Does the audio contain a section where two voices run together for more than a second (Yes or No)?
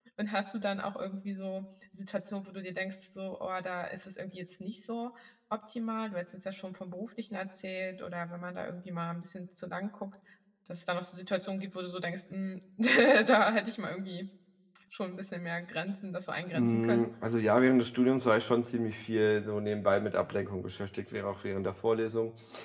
No